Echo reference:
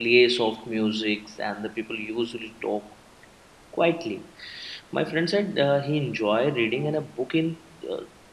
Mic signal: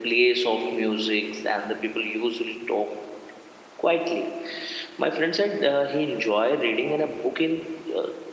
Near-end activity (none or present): none